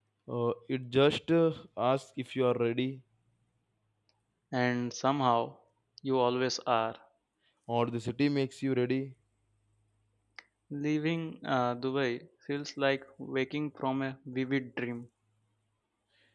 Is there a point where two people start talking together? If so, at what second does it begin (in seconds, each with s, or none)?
none